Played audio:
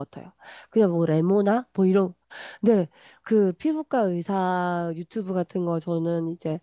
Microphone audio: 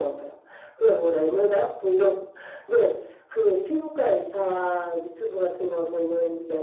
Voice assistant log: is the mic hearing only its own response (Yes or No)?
Yes